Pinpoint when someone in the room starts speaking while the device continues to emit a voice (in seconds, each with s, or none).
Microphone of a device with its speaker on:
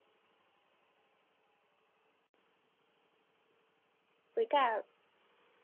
4.3 s